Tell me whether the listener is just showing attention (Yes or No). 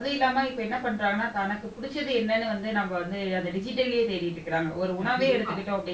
Yes